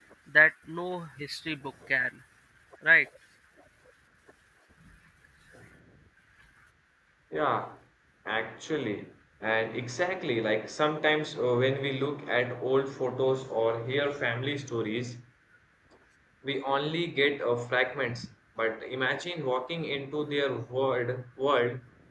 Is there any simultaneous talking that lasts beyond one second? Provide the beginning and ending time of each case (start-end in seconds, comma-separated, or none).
none